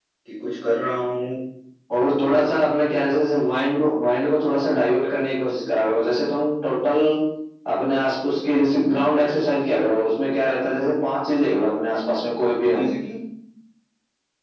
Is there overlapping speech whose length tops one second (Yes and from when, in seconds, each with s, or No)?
No